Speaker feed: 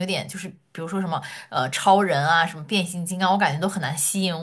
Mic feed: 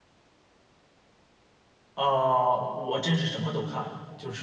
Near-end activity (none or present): present